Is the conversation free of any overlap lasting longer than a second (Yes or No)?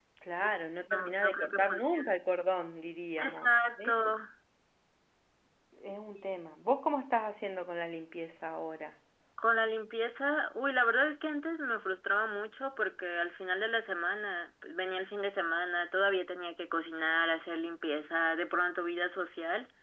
No